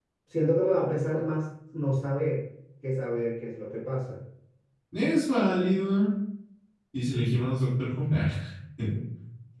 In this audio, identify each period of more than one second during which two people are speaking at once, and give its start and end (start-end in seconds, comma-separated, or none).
none